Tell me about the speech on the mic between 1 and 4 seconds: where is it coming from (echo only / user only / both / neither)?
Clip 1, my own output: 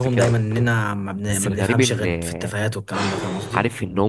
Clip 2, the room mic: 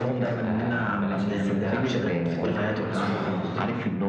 both